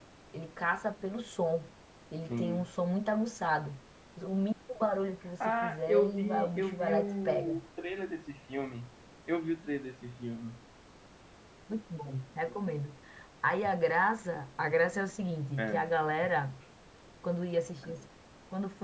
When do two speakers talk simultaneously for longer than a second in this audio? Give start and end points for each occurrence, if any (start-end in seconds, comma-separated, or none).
5.6-7.6